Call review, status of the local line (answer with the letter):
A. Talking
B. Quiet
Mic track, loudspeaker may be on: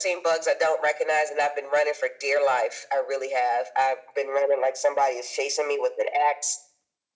B